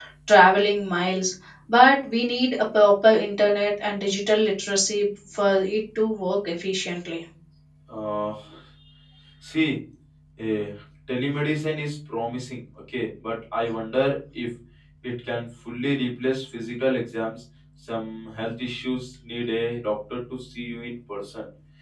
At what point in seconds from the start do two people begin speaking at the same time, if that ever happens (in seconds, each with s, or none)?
none